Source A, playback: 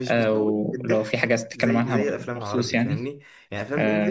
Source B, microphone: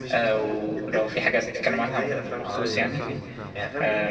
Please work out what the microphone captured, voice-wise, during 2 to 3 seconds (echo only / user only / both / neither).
both